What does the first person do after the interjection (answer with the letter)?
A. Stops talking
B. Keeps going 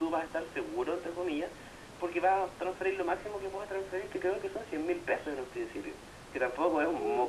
A